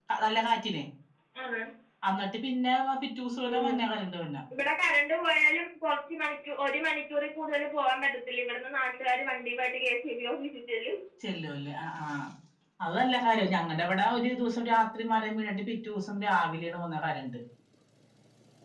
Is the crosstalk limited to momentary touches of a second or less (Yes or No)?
Yes